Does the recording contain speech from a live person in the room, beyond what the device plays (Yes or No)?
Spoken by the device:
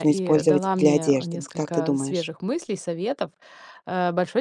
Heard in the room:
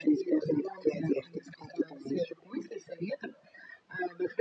No